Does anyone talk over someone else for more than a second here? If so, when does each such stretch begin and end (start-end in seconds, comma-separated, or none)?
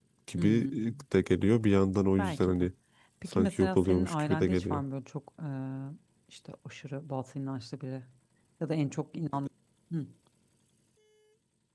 3.3-4.8